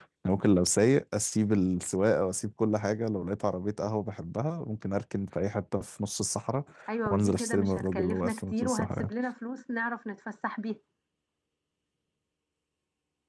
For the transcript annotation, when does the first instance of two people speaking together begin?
7.1 s

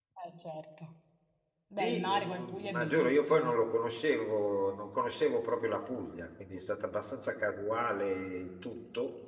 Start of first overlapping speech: 1.8 s

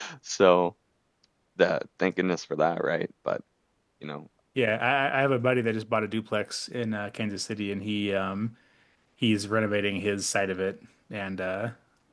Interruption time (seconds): none

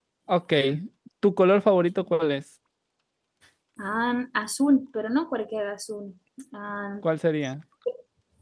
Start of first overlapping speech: none

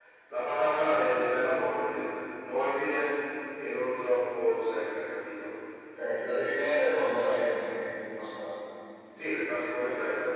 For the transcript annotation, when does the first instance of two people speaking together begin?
none

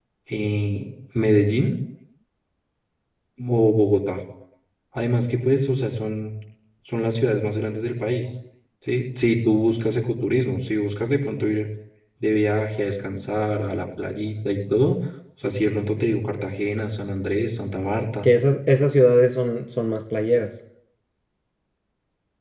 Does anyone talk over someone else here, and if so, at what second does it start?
none

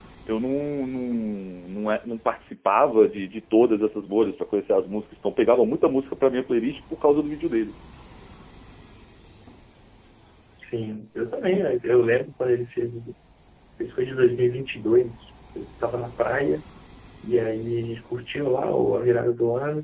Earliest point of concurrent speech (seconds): none

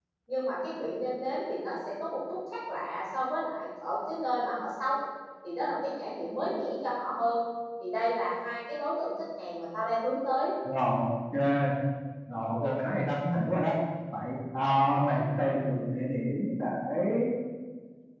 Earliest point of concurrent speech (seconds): none

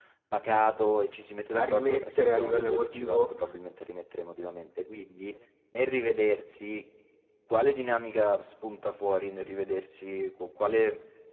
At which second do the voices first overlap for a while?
1.5 s

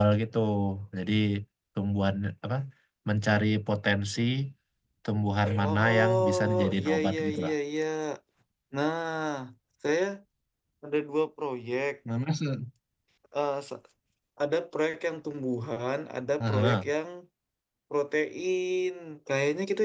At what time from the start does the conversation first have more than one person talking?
5.6 s

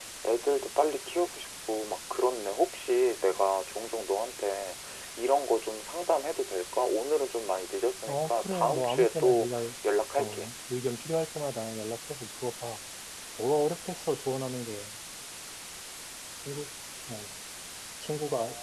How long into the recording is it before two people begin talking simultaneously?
8.1 s

